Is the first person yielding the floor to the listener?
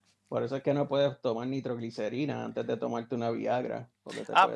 Yes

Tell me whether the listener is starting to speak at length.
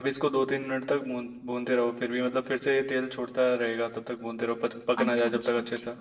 Yes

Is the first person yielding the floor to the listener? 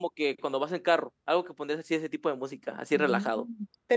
Yes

